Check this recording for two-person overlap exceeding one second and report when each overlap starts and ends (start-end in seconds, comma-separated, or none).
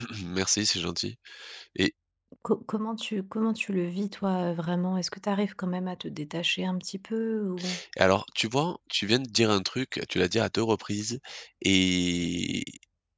none